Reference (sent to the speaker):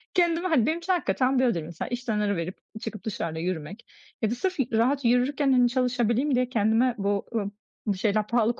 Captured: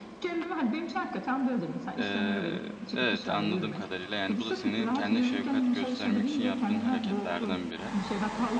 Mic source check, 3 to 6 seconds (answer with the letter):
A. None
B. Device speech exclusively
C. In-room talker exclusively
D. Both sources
D